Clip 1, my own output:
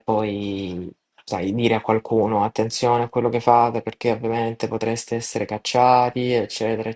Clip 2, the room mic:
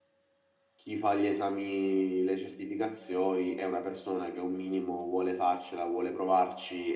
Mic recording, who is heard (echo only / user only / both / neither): user only